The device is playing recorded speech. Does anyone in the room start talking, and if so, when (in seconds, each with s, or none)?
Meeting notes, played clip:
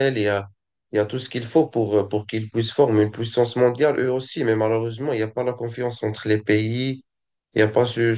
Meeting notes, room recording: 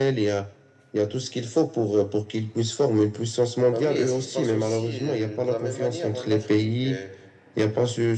3.7 s